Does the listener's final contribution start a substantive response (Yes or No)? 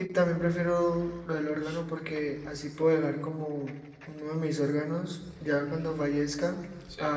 No